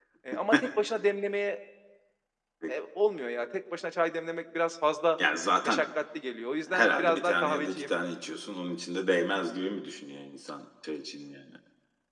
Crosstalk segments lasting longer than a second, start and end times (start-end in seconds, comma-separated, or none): 6.7-8.0